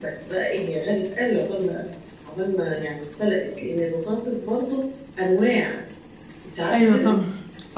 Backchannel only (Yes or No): No